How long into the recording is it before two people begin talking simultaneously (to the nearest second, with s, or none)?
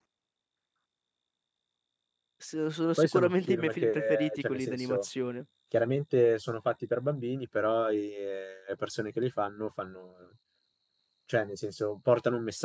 3 s